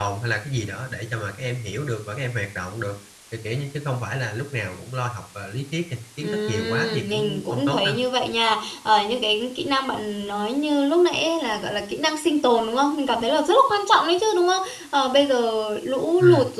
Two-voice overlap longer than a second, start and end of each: 6.2-8.0

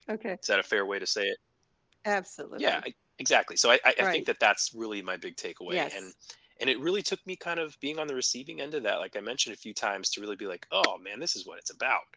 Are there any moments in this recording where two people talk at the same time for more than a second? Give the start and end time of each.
none

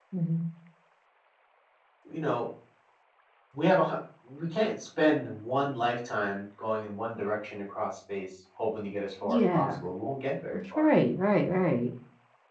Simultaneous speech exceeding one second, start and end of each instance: none

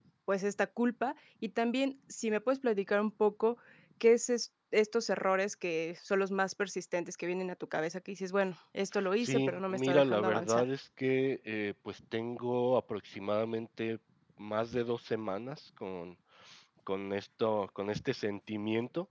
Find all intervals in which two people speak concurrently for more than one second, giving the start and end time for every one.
9.2-10.6

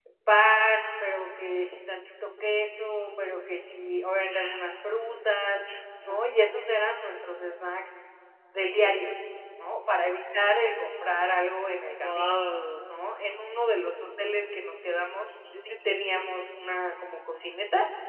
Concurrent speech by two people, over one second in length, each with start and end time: none

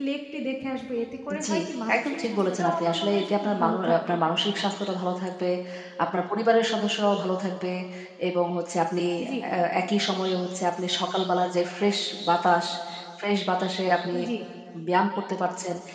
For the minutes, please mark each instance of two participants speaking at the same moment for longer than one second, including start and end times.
1.9-4.2

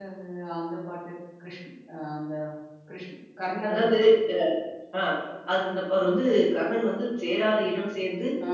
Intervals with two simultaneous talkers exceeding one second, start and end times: none

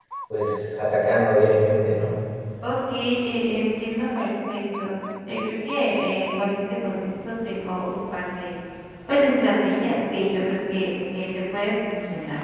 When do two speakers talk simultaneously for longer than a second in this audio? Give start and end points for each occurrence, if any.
none

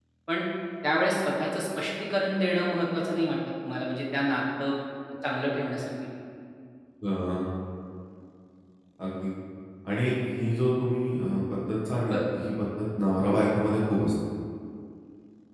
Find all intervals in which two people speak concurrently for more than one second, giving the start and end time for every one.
none

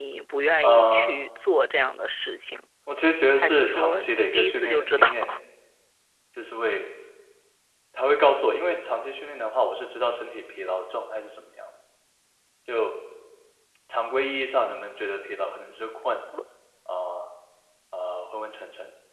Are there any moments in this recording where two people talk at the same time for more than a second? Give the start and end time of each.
3.3-5.3

